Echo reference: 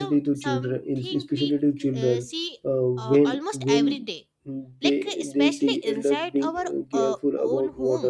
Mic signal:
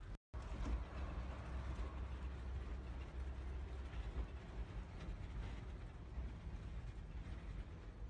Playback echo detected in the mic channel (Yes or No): No